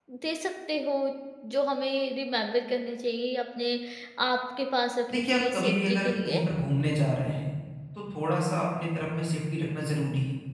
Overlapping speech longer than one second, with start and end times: 5.1-6.4

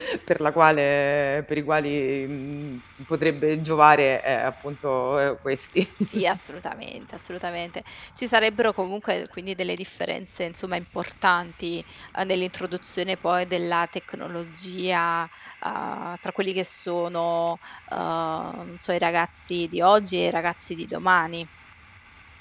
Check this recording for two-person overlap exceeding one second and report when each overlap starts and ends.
none

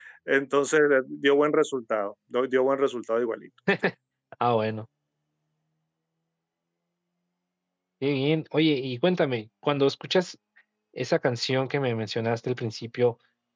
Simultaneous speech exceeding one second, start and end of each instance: none

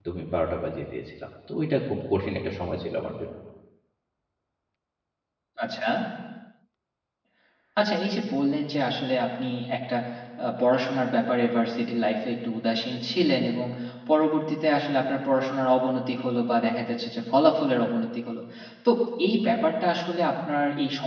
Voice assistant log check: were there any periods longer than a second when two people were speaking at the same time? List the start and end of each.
none

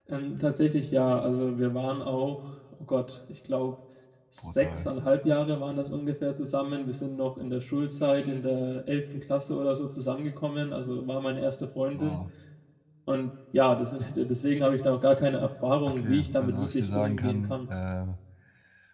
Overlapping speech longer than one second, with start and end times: 15.9-17.6

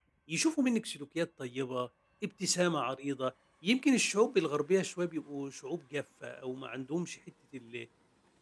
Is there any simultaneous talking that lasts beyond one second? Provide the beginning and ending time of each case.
none

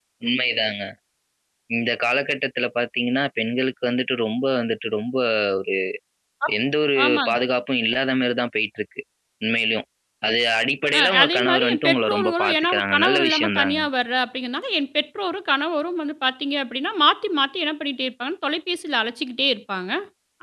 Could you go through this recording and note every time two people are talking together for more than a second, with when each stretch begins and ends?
11.0-13.8

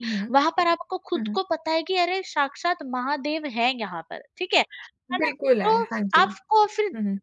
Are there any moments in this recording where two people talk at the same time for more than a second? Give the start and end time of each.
none

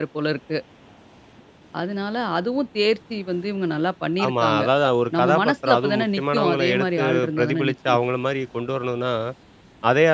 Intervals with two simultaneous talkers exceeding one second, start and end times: 5.1-8.0

